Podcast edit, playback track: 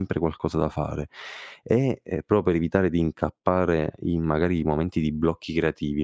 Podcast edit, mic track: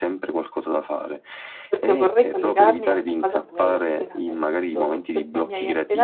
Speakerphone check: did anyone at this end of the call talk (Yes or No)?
Yes